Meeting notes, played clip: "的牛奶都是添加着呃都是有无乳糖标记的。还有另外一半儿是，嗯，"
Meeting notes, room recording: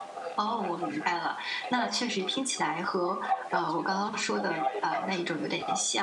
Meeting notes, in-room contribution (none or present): present